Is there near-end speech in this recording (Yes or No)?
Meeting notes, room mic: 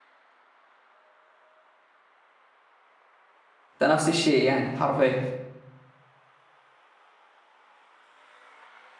Yes